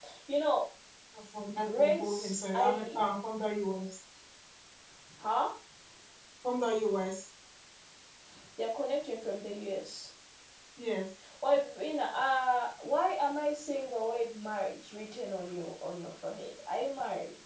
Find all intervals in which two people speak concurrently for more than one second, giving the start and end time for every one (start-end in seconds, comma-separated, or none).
1.6-3.0